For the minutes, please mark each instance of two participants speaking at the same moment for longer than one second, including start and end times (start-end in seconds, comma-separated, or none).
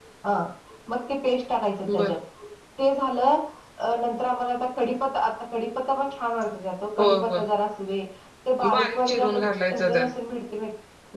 8.7-10.0